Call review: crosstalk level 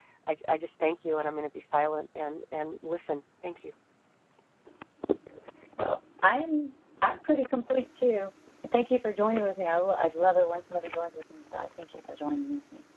none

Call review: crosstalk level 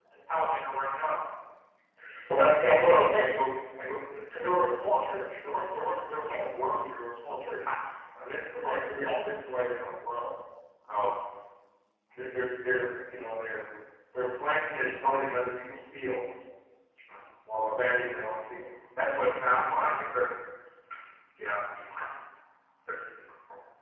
none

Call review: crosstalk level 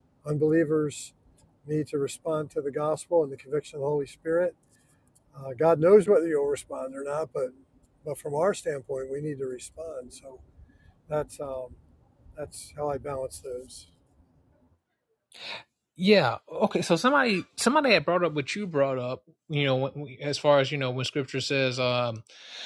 none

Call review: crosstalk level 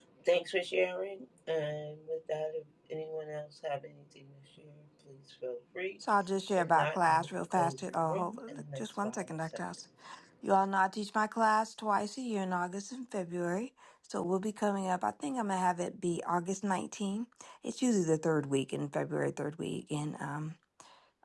present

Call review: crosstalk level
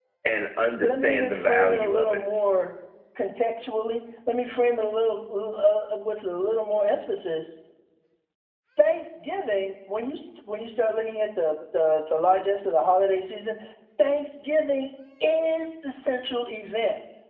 present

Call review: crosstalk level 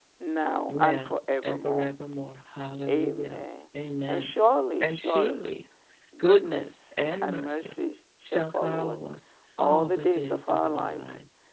present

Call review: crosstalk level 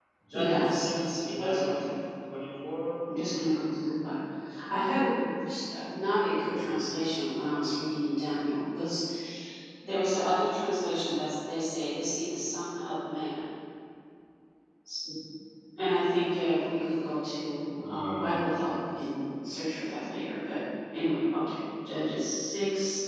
present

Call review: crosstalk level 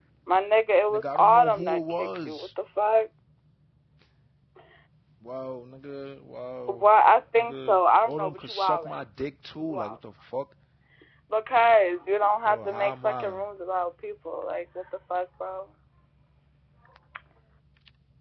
present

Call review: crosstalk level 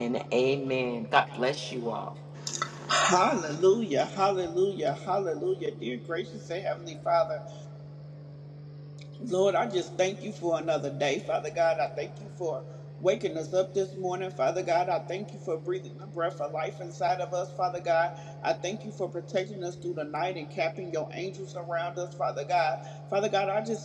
none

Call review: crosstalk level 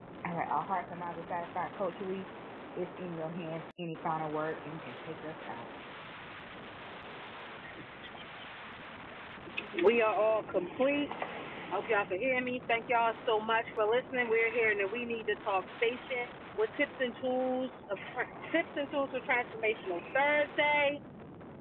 none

